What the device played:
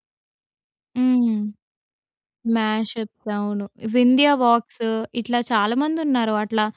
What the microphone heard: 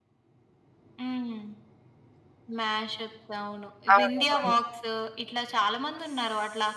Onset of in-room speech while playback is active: 4.0 s

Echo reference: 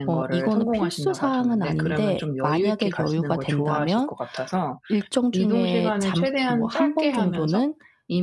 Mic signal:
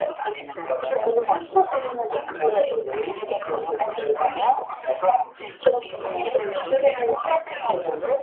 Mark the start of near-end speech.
none

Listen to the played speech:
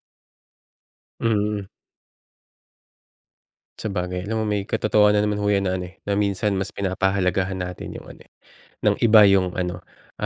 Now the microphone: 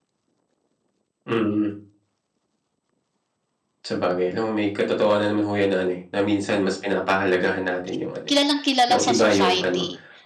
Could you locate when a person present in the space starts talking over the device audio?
7.9 s

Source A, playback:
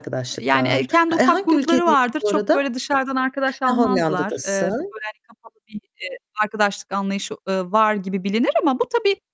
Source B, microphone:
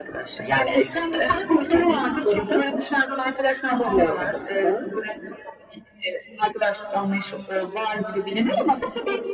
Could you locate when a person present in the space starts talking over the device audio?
none

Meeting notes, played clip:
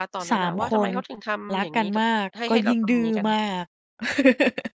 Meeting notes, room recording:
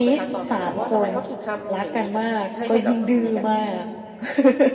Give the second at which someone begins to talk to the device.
none

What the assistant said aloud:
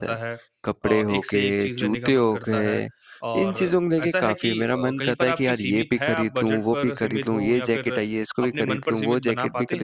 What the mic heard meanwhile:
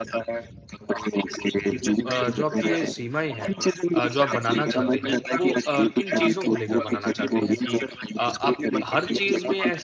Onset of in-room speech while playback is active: 2.1 s

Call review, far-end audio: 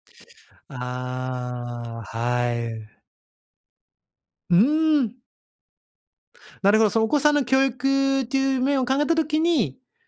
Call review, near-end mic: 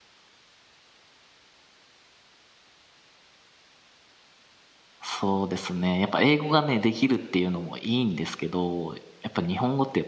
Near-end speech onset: 5.0 s

